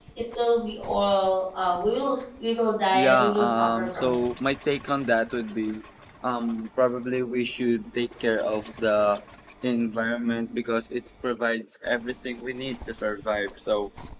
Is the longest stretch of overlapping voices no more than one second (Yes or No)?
No